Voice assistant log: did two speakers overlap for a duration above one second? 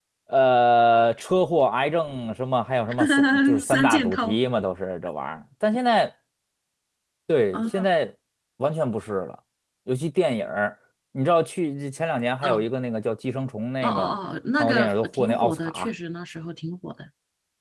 Yes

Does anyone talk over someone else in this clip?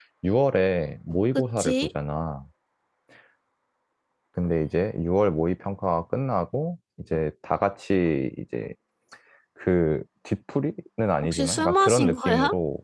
Yes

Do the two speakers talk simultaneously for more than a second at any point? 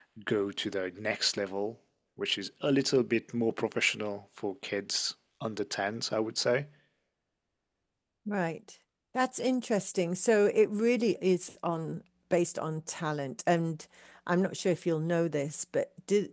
No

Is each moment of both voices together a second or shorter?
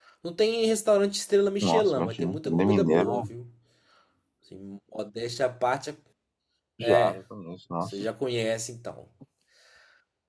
No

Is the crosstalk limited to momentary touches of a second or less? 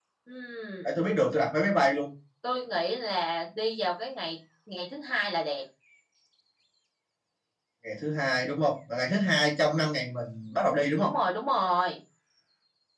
Yes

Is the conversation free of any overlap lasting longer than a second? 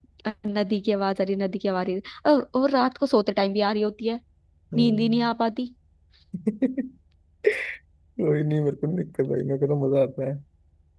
Yes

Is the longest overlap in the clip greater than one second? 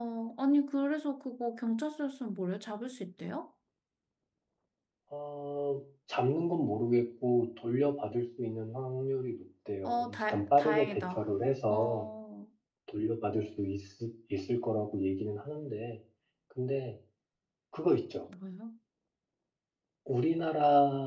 Yes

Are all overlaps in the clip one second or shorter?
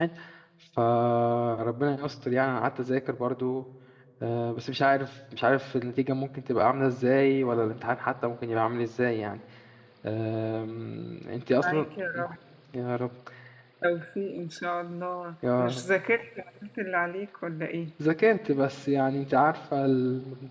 Yes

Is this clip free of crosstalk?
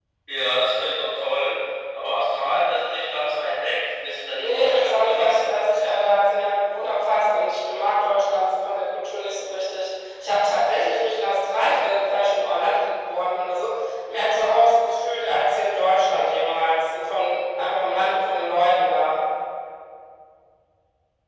No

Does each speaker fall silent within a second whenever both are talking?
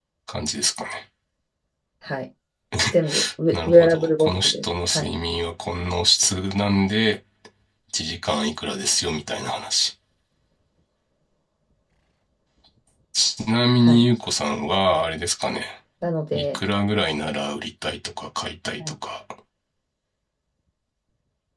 No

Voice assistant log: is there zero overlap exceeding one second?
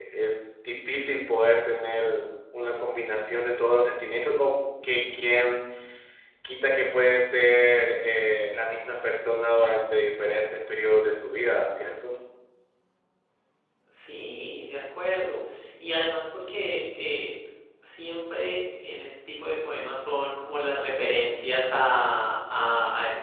Yes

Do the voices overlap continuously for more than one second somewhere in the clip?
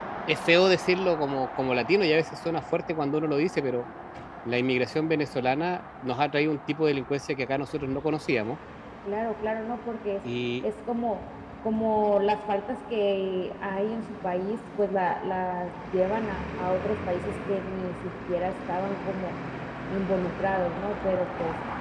No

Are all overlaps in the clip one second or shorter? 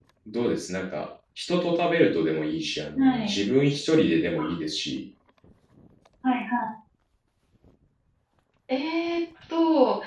Yes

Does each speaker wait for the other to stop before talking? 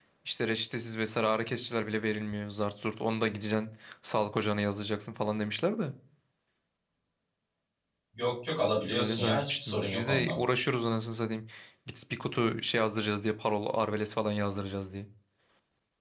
No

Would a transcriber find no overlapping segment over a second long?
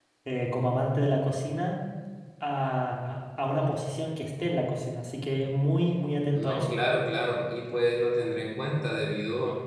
Yes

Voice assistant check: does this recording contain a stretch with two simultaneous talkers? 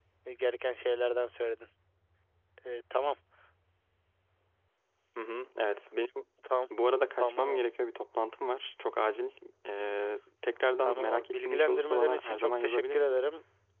Yes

